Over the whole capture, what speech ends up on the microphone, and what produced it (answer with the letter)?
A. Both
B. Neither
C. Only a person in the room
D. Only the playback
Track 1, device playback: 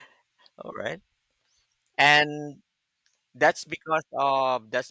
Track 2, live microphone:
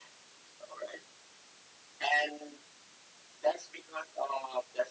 D